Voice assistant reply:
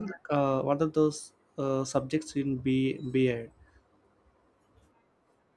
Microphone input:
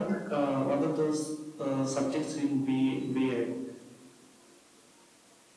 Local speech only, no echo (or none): none